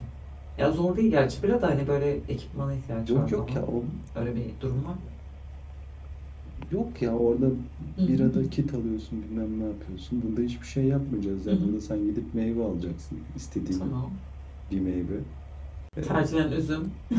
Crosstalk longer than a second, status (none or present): none